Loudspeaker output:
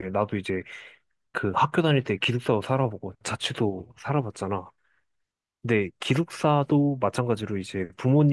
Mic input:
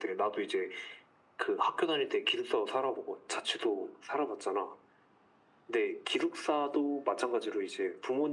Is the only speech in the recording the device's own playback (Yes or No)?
Yes